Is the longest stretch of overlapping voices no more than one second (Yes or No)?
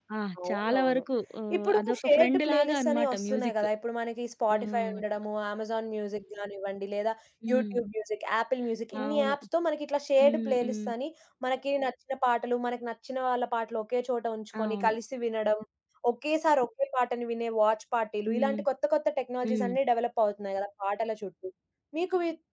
No